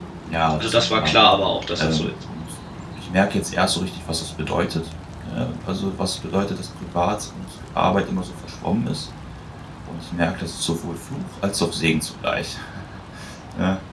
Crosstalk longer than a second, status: none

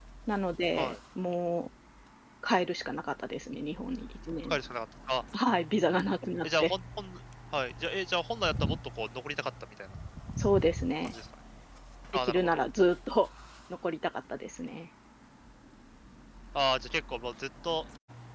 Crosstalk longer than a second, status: none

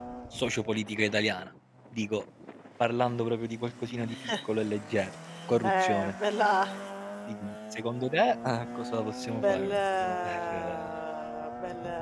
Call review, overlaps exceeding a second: present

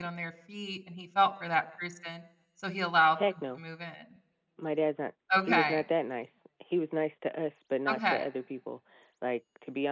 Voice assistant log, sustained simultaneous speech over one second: none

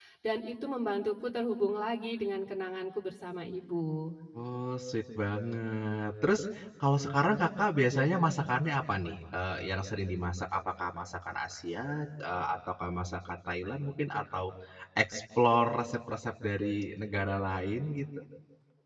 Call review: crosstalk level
none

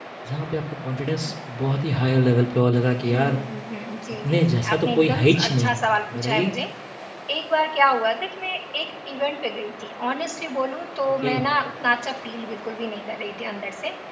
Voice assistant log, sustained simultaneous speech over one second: present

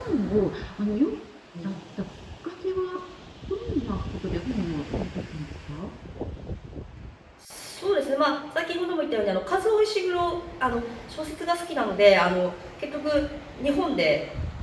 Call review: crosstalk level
none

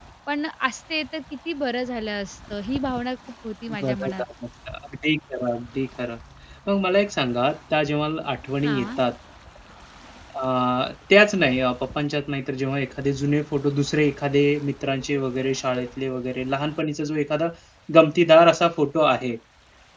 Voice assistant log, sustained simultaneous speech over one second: none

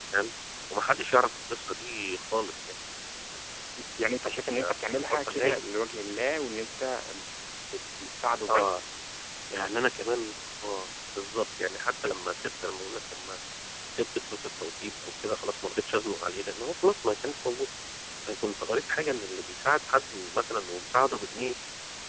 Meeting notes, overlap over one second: present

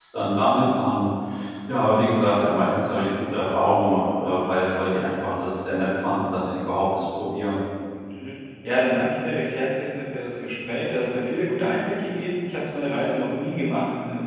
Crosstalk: none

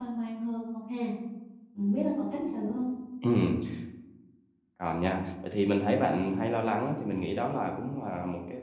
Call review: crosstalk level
none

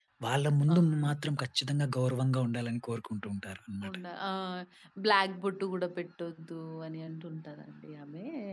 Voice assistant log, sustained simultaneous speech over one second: none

